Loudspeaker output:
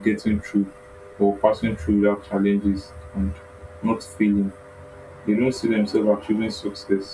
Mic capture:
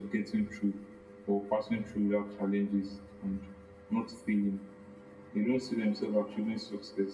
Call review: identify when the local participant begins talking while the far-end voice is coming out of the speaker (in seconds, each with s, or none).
none